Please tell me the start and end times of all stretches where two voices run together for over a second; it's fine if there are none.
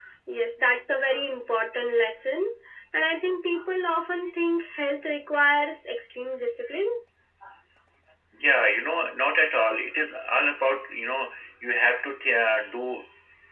none

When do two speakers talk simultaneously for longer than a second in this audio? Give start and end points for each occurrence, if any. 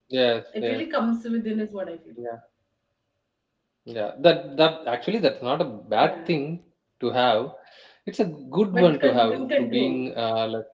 8.7-10.0

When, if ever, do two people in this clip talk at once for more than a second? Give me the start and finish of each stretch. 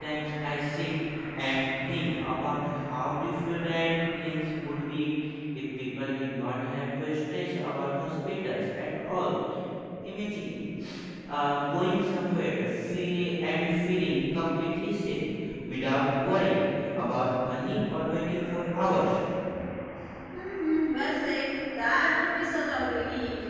none

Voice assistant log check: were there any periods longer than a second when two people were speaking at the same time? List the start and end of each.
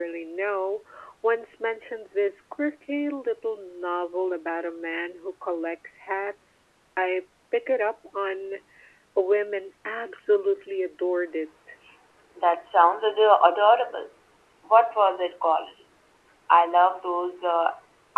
none

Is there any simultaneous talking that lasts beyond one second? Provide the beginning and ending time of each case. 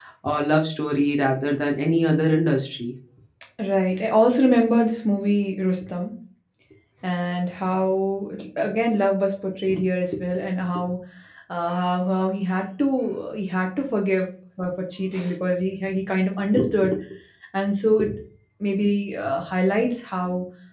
none

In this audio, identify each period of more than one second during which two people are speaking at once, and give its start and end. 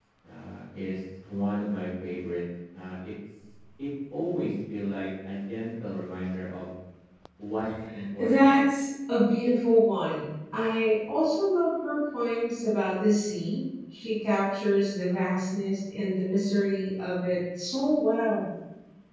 none

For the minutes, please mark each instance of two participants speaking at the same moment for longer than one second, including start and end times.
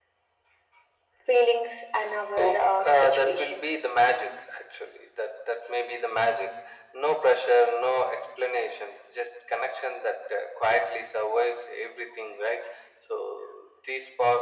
2.4-3.6

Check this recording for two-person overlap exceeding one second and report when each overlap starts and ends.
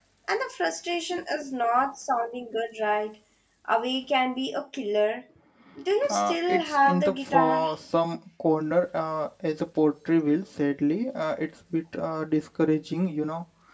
6.1-7.7

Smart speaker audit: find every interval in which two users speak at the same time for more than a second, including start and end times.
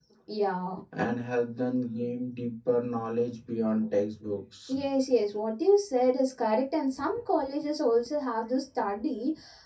none

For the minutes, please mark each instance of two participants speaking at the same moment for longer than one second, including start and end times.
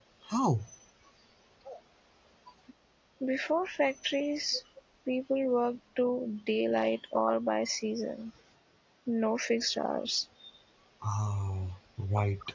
none

